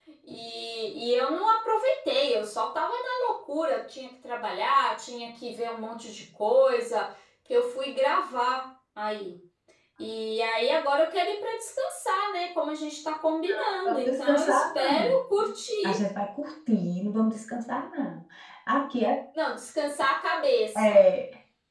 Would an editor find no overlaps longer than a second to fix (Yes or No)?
No